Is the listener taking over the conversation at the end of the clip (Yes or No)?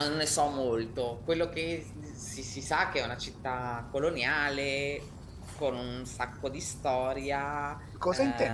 Yes